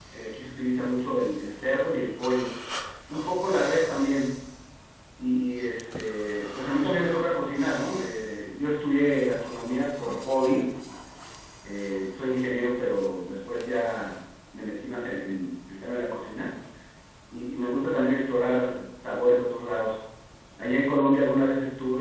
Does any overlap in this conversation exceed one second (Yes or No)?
No